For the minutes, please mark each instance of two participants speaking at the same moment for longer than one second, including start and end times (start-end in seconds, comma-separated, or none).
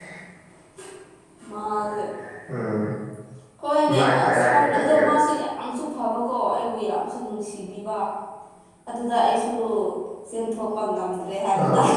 3.9-5.1